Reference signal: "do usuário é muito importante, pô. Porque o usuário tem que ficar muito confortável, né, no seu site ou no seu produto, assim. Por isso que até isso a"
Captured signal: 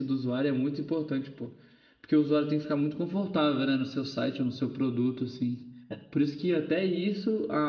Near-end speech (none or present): none